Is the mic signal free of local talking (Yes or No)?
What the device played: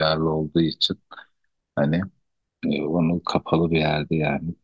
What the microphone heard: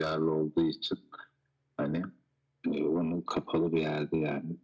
Yes